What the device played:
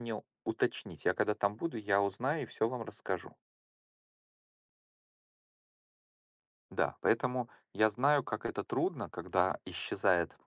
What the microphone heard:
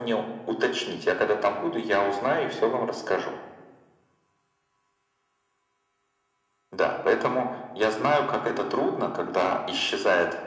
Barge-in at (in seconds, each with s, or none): none